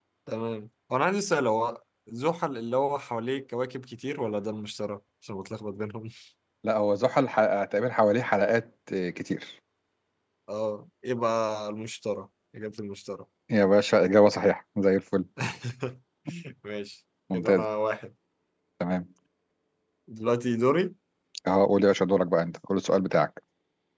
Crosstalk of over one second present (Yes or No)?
No